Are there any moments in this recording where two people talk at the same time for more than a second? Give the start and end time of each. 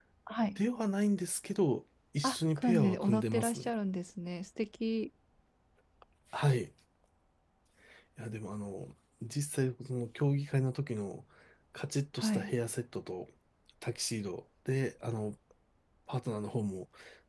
2.2-3.7

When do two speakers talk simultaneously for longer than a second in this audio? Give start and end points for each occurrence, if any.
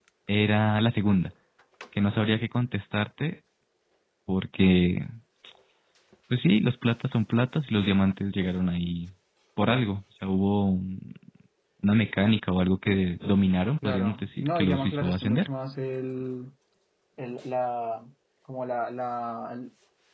13.8-15.5

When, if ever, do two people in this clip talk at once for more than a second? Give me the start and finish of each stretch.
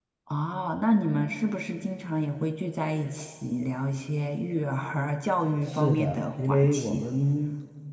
5.7-7.0

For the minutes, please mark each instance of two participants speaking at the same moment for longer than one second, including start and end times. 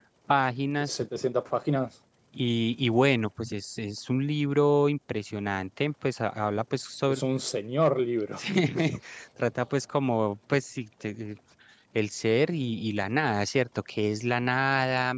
none

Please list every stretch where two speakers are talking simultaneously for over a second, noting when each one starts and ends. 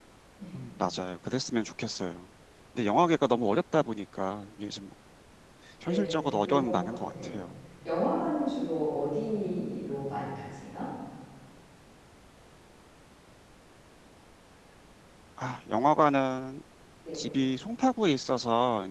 5.9-7.3

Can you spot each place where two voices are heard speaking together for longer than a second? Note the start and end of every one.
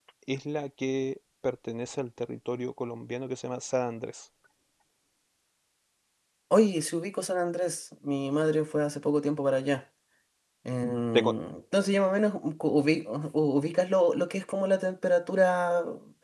none

